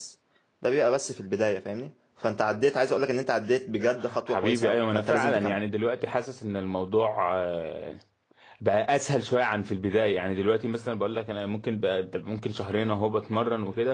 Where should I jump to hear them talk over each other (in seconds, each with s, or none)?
4.3 s